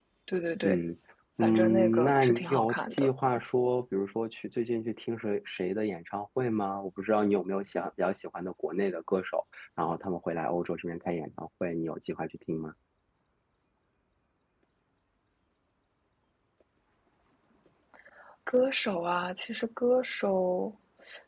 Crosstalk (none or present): present